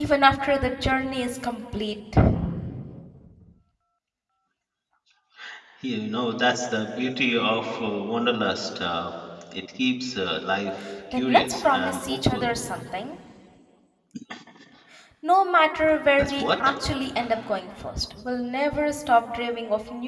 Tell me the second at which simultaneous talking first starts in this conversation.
11.1 s

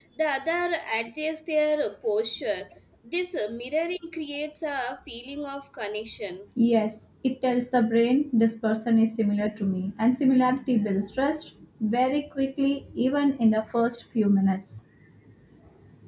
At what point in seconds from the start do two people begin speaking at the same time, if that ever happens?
none

